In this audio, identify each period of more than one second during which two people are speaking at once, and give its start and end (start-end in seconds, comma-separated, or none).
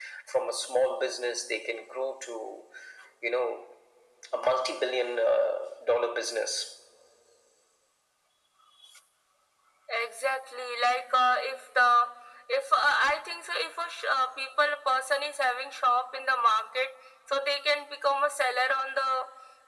none